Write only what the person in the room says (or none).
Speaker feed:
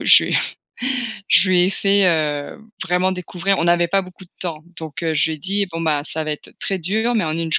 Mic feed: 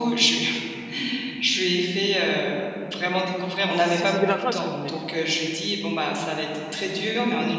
Si c'est de l'argent, elle serait venue.